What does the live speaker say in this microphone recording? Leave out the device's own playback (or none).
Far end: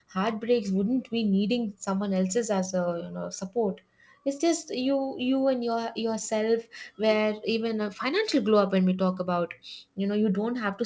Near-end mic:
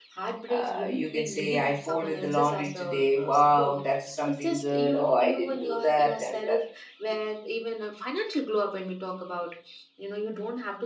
uh, you can say, I folded the laundry today. Wow, that is something good. Oh, I didn't do that. And that